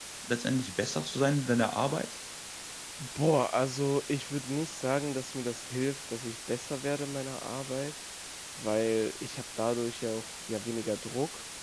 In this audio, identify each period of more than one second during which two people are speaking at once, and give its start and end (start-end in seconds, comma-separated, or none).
none